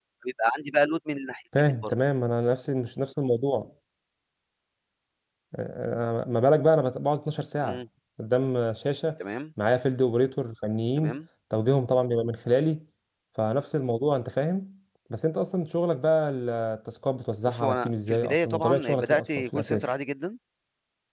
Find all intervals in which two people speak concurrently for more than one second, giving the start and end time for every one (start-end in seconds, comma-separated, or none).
17.5-19.9